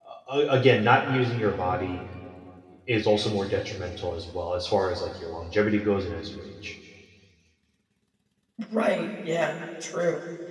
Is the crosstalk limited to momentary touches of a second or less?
Yes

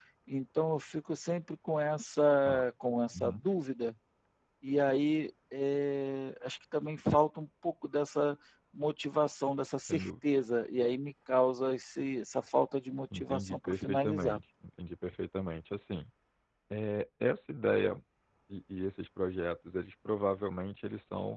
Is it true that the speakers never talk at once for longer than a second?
No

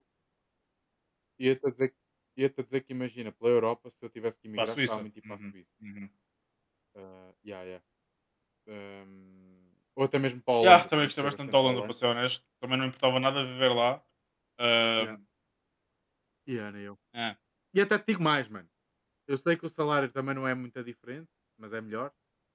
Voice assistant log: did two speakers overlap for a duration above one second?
Yes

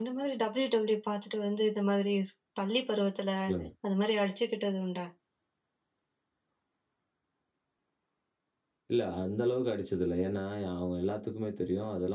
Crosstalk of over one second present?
No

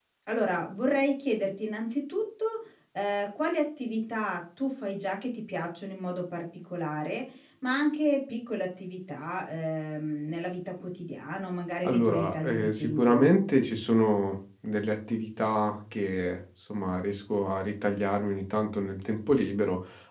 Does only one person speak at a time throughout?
No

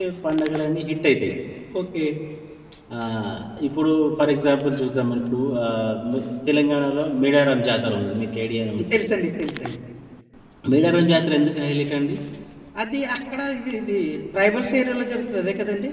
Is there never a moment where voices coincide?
Yes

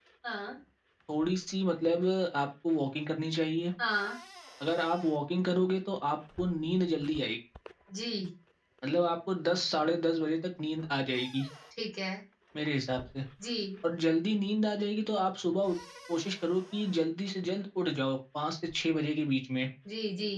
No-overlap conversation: Yes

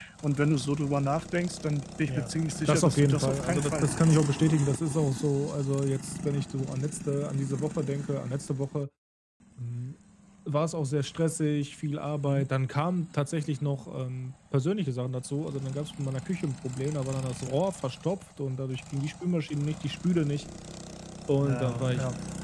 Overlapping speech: Yes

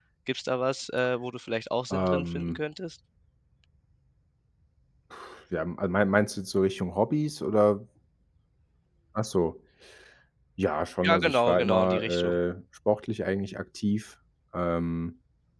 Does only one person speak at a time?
No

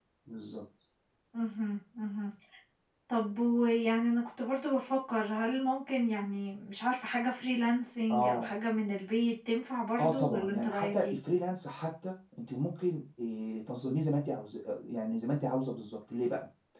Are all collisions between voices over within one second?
No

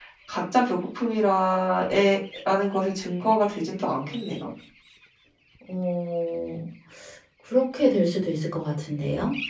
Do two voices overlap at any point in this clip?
No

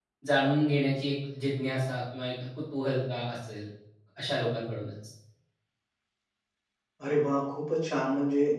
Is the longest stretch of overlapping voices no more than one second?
Yes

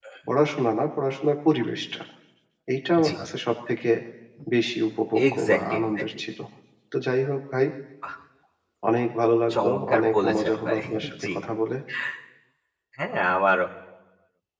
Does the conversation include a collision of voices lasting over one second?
Yes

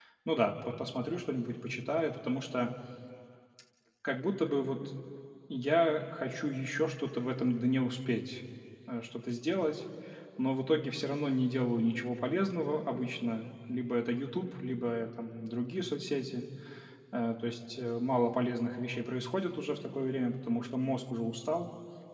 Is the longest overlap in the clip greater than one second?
No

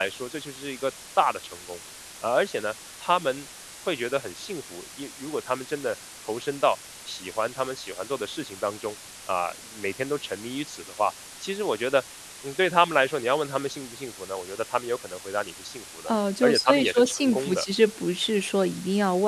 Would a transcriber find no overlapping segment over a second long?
No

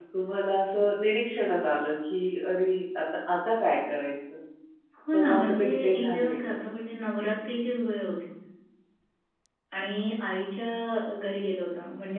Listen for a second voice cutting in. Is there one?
Yes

